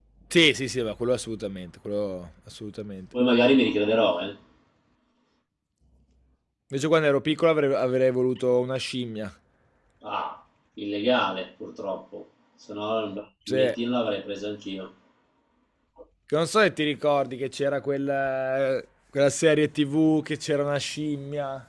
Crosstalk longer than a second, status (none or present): none